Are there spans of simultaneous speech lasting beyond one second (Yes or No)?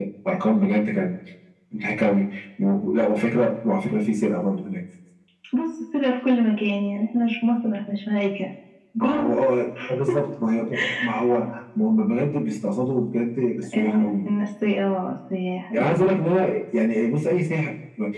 No